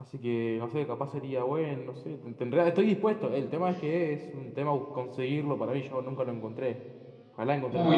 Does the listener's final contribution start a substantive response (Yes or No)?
Yes